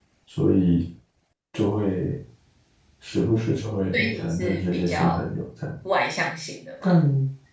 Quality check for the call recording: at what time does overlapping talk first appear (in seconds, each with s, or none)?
3.9 s